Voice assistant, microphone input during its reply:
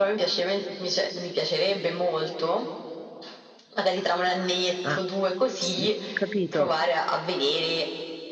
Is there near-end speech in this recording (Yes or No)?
Yes